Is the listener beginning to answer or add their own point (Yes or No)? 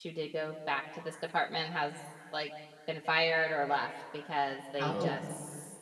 No